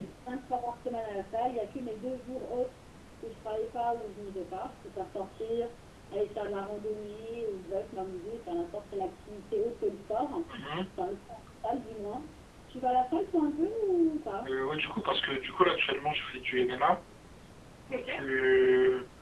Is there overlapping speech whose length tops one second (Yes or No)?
No